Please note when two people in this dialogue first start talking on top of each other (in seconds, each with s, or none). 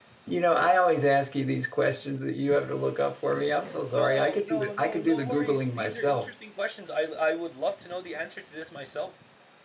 3.8 s